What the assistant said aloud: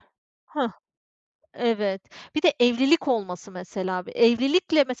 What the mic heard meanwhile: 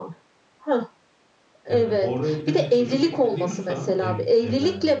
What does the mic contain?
both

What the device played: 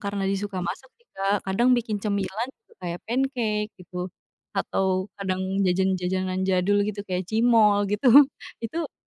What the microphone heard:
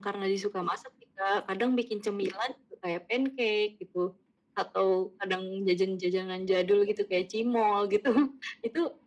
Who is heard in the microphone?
echo only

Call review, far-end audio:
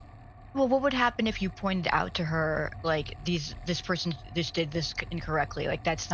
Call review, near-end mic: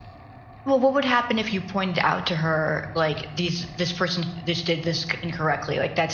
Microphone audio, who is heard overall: echo only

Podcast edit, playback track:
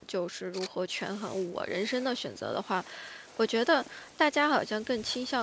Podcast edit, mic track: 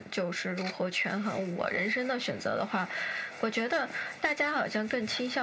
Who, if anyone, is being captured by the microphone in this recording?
echo only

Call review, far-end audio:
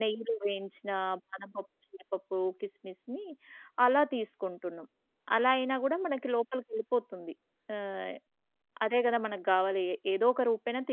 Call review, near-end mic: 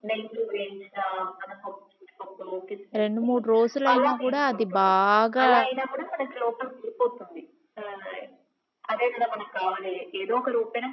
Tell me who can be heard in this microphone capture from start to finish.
both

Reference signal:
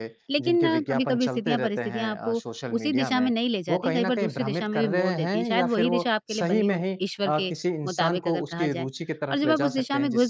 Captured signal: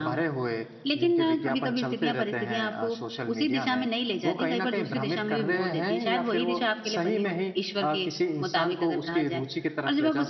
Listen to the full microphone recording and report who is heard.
echo only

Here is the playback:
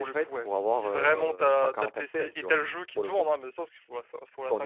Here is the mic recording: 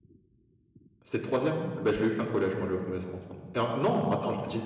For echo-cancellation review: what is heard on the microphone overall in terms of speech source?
user only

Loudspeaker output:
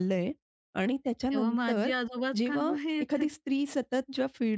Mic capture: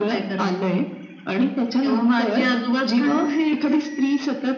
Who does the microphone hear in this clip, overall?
echo only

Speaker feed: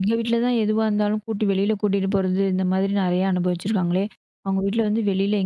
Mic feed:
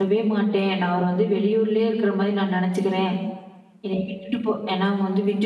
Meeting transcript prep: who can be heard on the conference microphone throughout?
user only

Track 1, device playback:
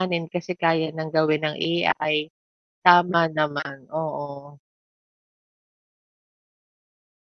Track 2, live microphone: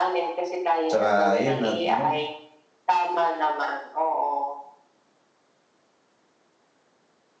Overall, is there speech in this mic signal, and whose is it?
both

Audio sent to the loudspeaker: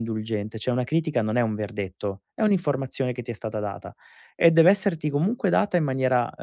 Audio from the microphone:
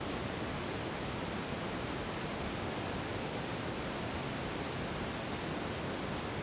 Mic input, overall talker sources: neither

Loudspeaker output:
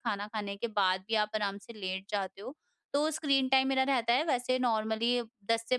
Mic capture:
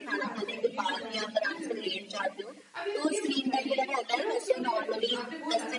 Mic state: both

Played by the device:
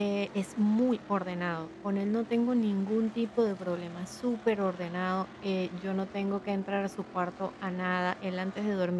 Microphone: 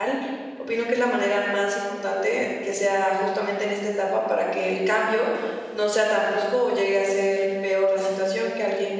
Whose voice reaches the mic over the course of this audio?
user only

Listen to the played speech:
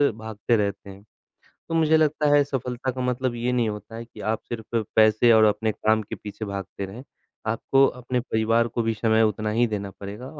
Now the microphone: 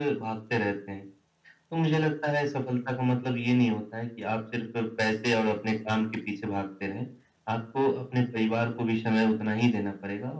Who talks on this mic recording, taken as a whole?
echo only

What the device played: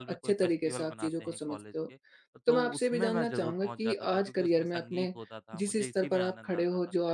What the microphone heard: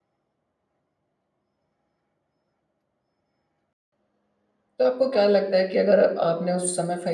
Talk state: user only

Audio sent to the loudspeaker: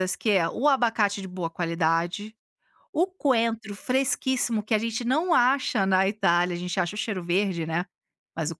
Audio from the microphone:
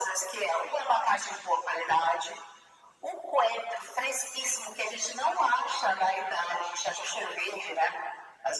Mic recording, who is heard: echo only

